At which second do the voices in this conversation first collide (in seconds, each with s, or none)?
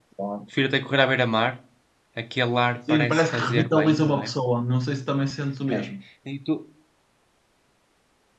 2.9 s